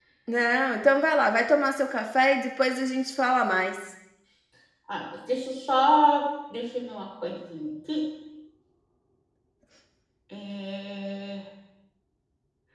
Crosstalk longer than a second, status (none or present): none